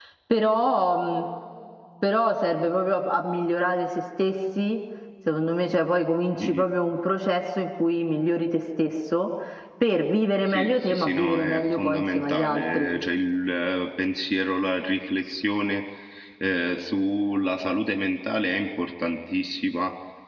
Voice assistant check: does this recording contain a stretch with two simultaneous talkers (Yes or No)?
Yes